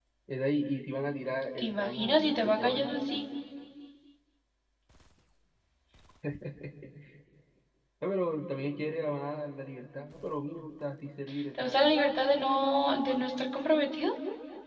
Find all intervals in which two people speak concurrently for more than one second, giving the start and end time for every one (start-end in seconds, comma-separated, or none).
1.6-2.9